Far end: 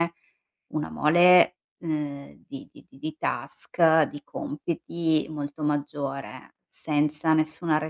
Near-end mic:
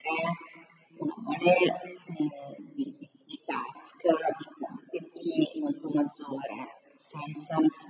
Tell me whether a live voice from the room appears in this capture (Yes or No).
No